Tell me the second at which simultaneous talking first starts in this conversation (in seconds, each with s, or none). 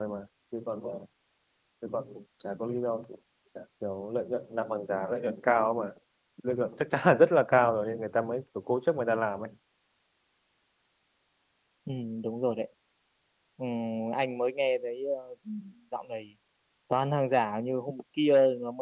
none